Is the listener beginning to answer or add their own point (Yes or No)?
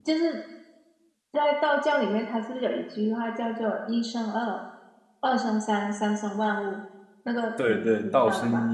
Yes